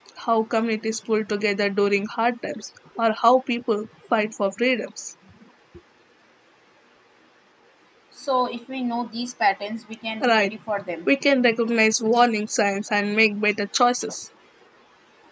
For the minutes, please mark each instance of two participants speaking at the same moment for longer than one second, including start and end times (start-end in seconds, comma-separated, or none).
none